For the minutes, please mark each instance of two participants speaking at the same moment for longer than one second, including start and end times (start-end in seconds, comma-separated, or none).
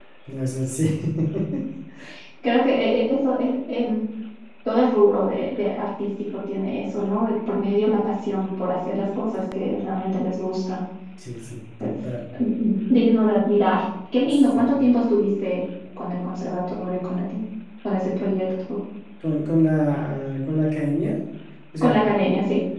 none